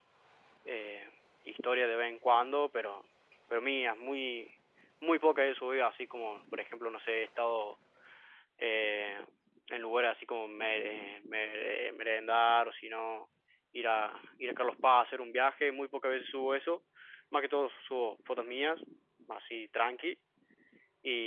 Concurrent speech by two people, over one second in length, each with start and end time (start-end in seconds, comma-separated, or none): none